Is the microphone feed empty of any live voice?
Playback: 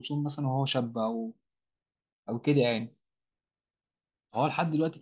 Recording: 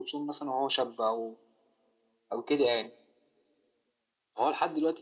Yes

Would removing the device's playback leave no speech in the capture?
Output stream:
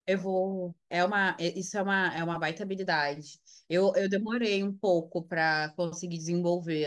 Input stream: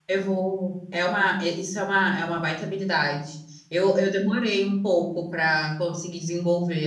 Yes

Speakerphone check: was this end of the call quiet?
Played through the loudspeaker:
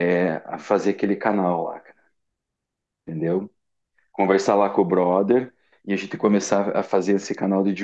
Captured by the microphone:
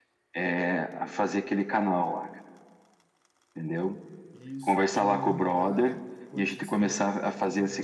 No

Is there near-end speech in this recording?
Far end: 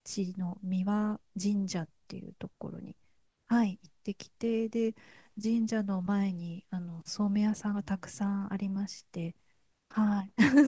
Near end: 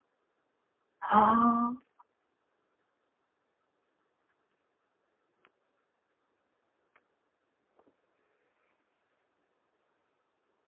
Yes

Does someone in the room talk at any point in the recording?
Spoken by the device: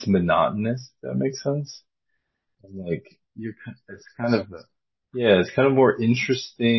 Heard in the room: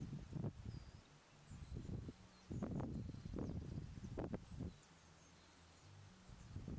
No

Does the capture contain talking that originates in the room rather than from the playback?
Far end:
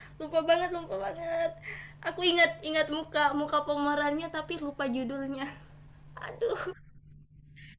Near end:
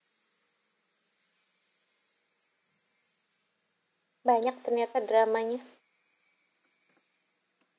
Yes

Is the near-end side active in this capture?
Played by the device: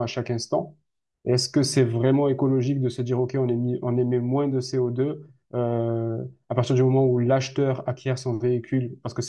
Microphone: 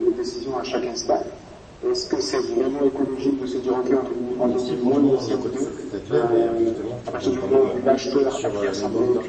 Yes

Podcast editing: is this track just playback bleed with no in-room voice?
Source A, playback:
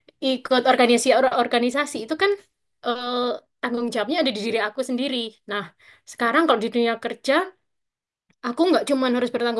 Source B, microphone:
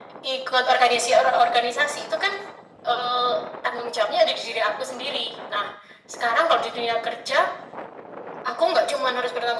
Yes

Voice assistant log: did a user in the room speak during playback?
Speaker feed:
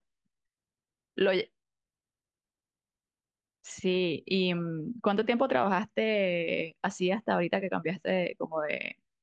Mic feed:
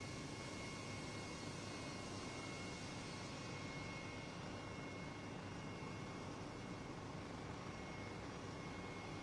No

